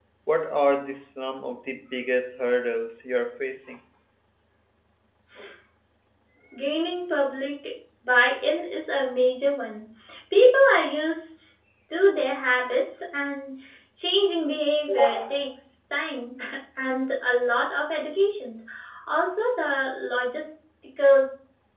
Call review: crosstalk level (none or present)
none